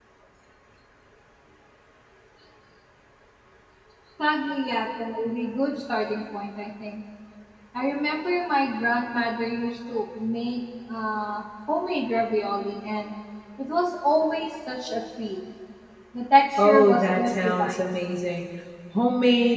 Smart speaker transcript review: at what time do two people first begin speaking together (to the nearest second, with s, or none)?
17 s